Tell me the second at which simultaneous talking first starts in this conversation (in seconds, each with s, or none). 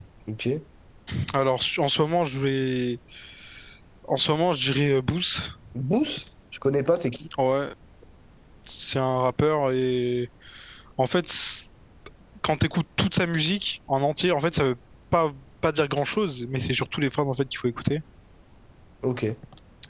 none